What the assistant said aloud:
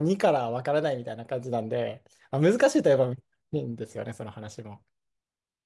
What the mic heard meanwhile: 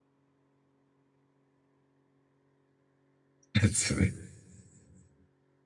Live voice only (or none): やつね。